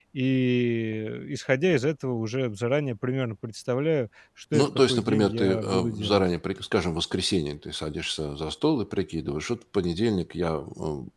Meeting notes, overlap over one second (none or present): present